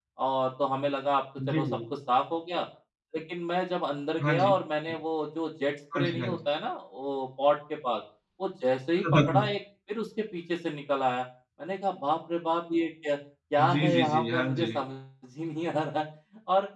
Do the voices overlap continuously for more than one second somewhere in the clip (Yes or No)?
Yes